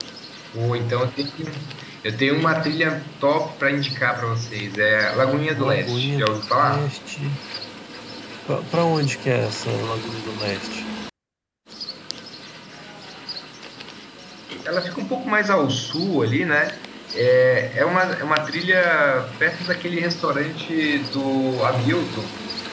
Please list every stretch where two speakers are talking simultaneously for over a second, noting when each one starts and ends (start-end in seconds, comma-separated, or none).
5.5-6.9